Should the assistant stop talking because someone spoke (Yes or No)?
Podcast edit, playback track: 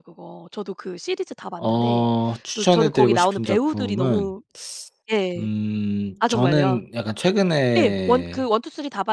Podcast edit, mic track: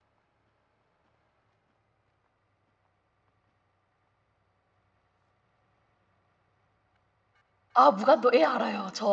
Yes